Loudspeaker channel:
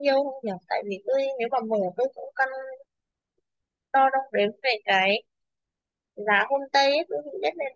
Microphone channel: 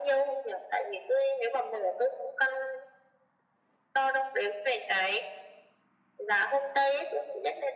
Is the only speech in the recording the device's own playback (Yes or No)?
Yes